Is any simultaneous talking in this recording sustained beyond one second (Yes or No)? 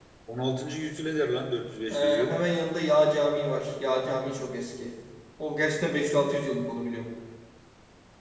No